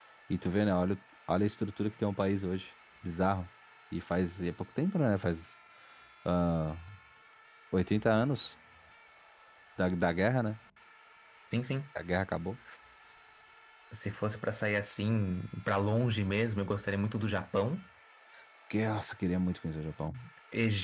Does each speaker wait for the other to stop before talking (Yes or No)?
Yes